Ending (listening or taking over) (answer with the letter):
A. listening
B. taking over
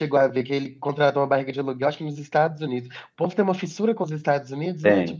B